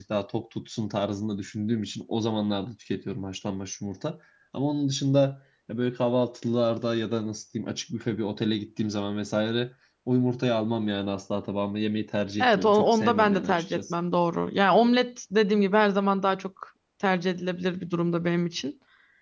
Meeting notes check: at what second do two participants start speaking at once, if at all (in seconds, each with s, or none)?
12.4 s